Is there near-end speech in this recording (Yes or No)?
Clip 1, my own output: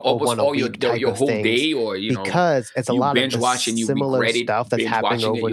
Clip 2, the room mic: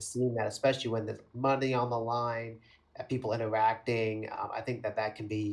Yes